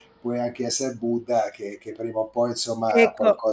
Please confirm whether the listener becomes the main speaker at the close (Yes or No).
Yes